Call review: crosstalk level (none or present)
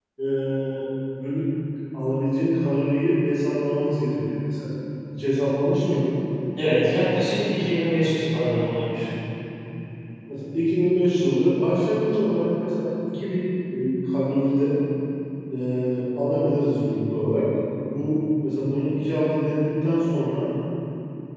none